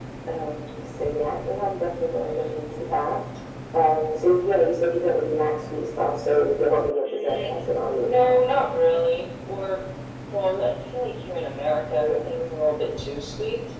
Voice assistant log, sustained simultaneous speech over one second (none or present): none